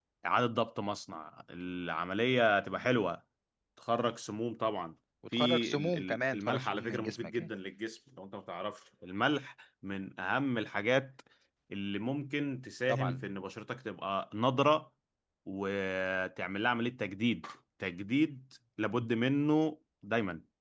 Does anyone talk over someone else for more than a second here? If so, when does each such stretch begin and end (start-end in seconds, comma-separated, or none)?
5.3-7.5